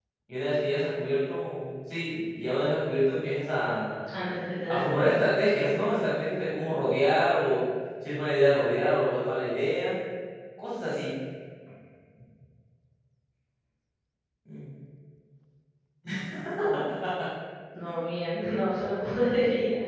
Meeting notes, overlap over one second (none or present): none